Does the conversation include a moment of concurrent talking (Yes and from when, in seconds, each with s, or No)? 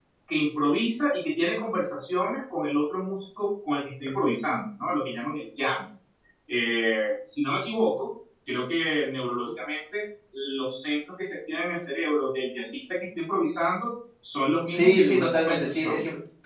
Yes, from 14.7 s